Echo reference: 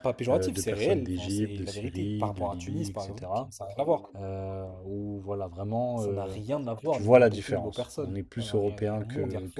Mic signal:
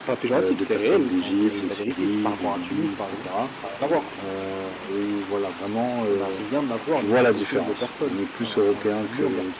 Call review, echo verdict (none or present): present